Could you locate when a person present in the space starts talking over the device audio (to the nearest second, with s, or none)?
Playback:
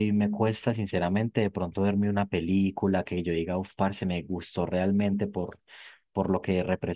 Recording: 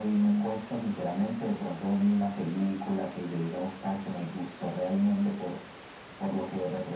none